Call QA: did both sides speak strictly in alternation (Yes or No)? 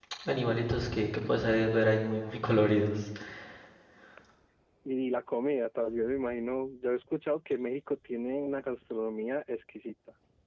Yes